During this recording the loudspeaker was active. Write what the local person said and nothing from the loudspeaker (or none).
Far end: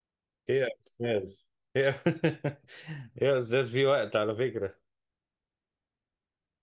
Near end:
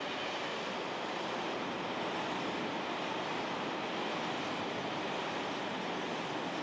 none